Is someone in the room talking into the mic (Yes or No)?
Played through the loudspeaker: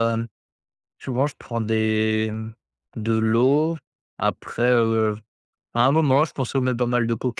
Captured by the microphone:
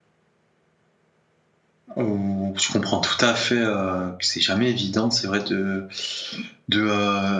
Yes